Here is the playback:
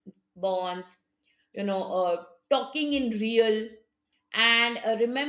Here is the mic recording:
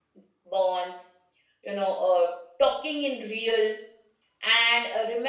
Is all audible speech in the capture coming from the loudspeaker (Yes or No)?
Yes